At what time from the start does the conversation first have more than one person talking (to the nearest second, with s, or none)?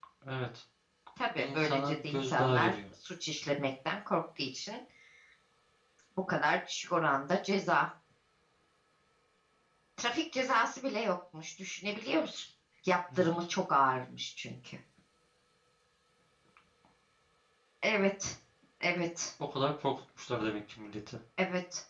1 s